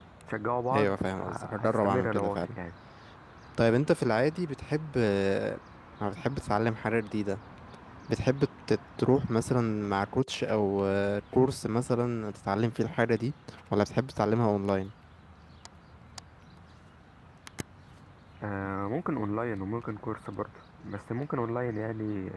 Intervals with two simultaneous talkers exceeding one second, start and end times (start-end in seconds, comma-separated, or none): 0.7-2.6